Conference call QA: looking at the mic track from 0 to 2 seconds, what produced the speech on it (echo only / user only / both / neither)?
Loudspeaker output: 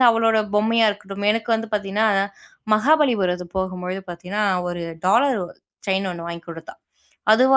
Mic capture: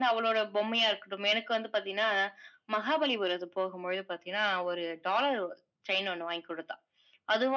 echo only